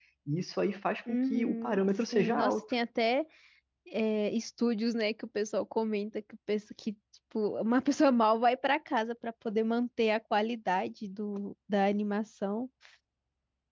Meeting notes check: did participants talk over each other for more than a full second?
Yes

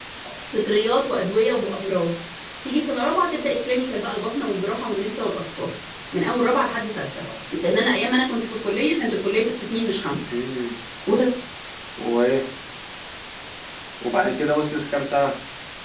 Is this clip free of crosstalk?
Yes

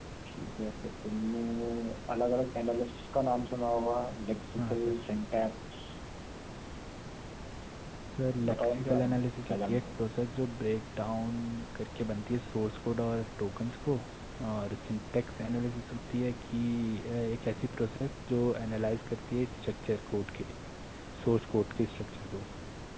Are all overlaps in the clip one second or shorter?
No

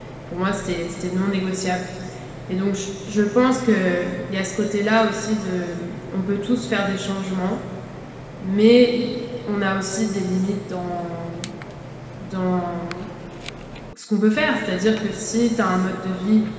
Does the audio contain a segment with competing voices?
No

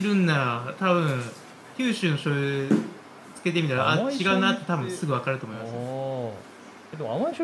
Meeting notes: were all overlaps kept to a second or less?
No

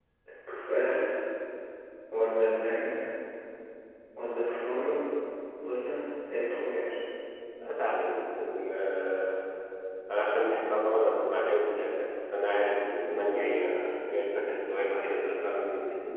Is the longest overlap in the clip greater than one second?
No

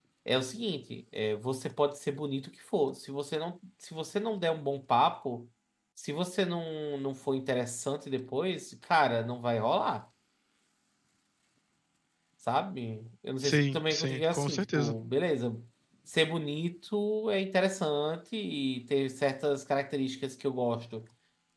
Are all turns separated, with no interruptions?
No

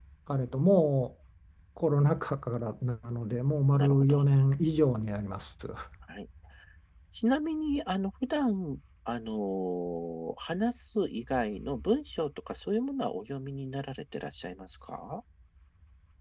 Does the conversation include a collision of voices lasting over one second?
No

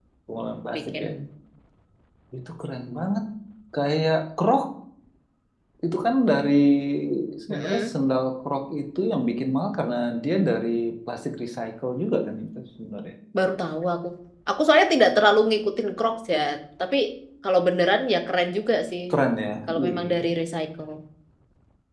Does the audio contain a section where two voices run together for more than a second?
No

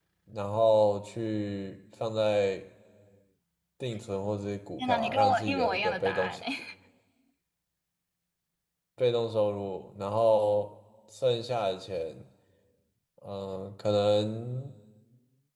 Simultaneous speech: Yes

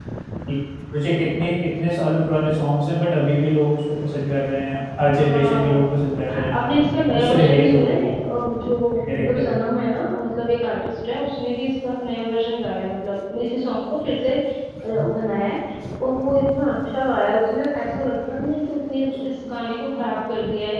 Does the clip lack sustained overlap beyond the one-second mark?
No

